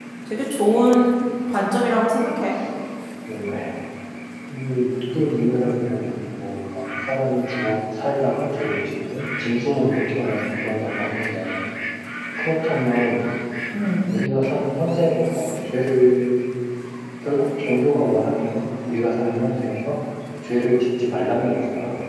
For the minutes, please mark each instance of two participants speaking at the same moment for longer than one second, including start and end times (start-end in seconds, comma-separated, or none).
none